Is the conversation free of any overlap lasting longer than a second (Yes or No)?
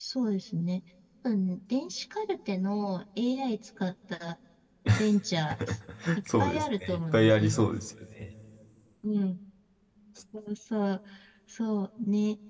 No